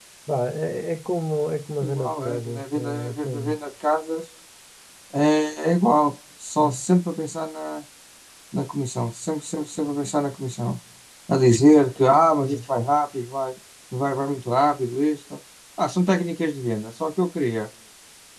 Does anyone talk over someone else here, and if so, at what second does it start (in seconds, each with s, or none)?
1.8 s